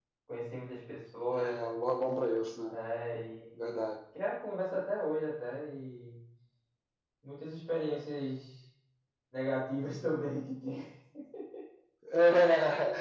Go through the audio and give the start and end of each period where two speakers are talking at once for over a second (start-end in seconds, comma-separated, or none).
none